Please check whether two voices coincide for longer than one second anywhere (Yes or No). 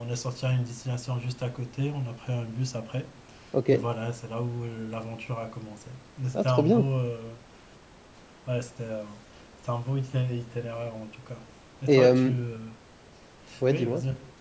No